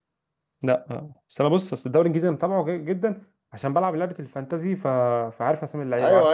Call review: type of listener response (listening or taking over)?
taking over